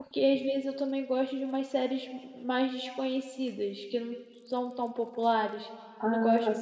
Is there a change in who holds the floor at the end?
No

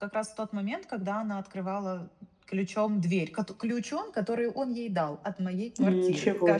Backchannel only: No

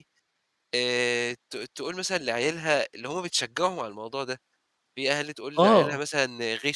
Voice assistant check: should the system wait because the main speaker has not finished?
Yes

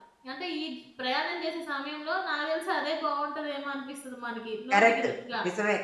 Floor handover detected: Yes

